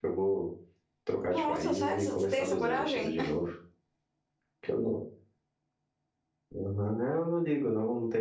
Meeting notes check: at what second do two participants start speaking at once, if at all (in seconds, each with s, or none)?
1.3 s